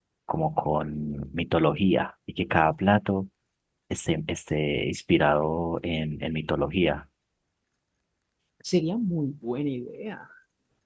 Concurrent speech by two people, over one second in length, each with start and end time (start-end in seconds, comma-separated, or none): none